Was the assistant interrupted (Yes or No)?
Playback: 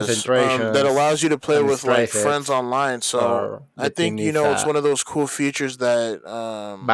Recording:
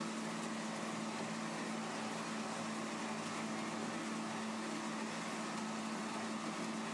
No